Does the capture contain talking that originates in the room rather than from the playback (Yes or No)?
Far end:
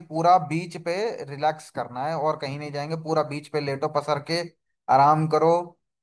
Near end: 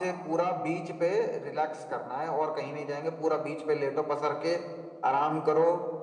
No